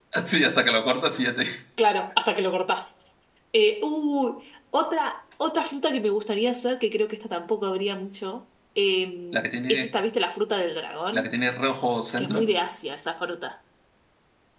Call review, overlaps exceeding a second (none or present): none